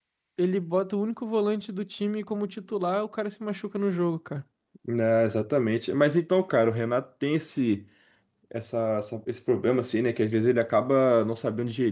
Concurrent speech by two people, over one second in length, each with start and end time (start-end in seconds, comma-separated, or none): none